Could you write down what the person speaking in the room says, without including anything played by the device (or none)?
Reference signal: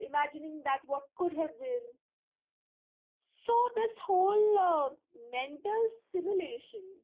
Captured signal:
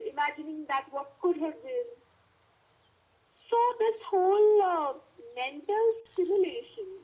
none